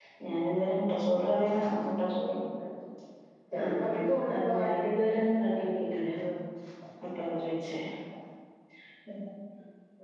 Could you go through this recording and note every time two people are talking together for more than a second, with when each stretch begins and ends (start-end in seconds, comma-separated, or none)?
3.6-5.0